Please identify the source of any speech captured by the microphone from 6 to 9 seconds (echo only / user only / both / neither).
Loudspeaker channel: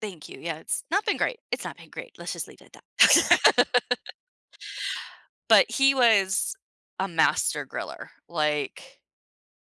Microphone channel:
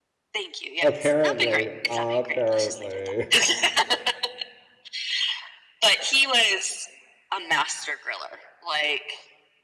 echo only